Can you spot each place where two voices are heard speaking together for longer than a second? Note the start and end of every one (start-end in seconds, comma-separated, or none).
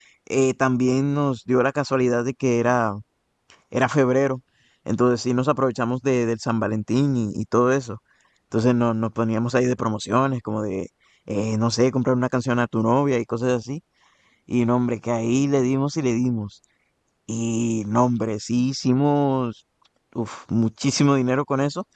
none